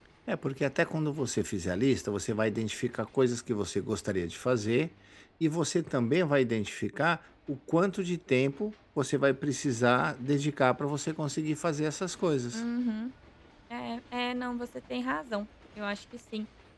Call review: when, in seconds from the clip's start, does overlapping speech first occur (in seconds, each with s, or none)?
none